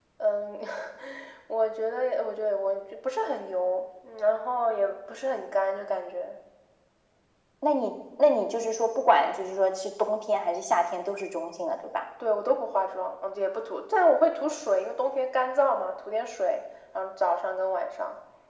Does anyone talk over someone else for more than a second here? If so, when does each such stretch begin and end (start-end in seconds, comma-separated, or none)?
none